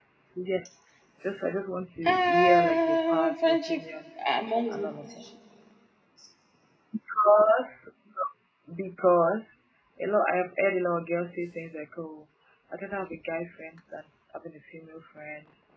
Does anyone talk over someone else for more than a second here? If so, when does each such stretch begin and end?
2.0-3.8

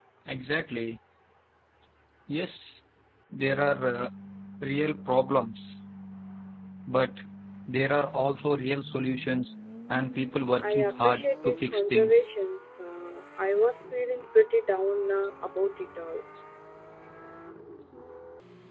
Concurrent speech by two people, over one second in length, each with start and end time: 10.6-12.2

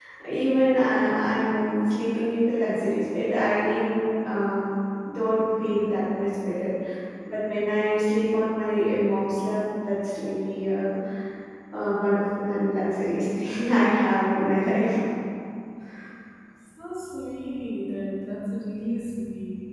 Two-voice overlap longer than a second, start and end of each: none

